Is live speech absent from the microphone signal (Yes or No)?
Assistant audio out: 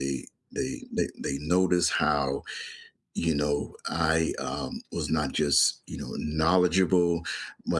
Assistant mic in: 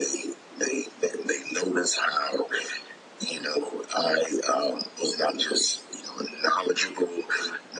Yes